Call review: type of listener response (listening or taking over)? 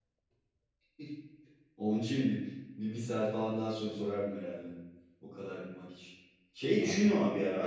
listening